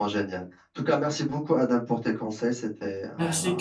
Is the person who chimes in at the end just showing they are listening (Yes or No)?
No